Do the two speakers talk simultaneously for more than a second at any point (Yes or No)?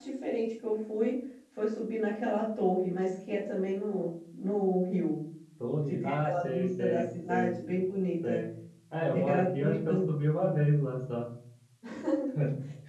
Yes